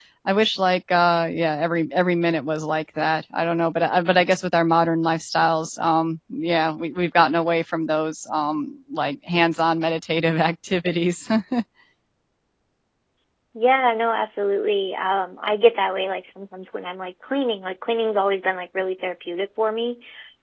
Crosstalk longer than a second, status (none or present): none